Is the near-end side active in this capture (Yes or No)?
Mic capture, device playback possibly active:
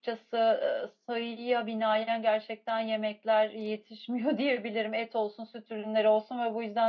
Yes